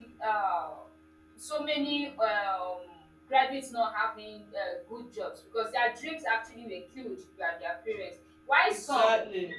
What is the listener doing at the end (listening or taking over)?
listening